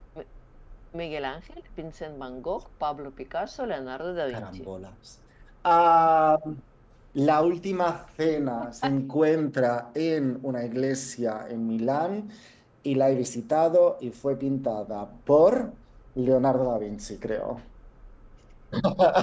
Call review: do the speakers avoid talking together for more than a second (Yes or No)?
Yes